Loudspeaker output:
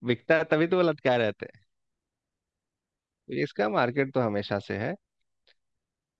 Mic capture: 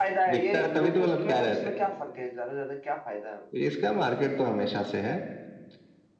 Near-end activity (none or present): present